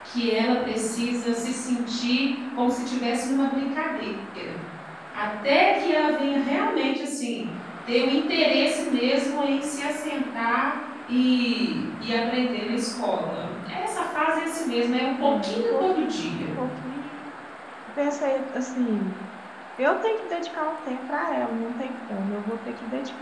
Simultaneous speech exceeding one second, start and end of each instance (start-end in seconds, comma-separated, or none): 15.2-16.5